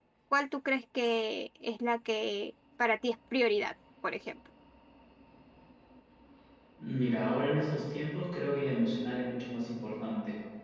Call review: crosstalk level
none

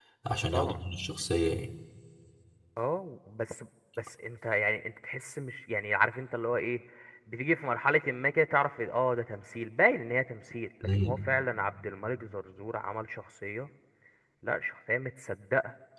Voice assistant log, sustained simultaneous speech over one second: none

